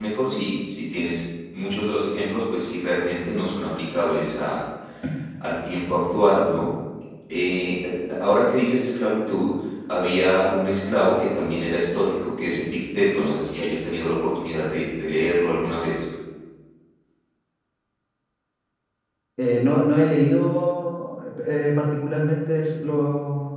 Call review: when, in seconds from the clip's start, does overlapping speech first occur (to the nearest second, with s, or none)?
none